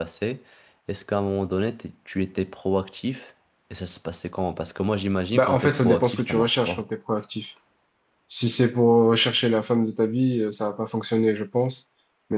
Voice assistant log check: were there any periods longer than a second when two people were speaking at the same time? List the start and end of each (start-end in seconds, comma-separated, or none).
5.3-6.8